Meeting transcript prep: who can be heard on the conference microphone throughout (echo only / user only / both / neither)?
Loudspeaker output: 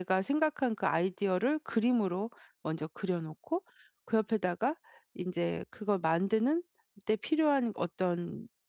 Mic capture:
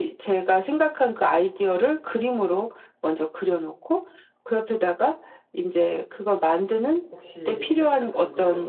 both